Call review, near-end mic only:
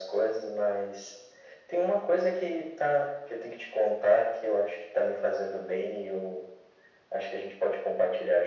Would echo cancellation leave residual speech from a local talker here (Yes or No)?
No